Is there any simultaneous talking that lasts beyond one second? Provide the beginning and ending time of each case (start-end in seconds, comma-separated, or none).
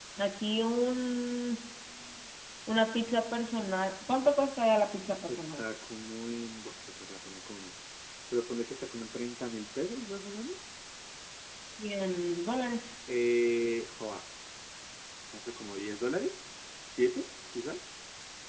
none